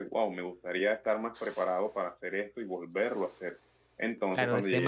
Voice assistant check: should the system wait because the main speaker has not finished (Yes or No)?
No